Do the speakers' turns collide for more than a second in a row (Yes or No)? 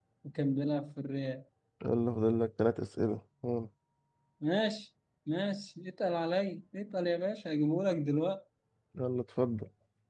No